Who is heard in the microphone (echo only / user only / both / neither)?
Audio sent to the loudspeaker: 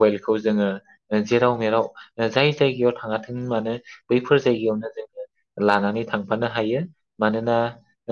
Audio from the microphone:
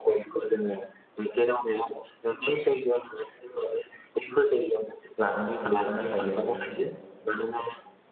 both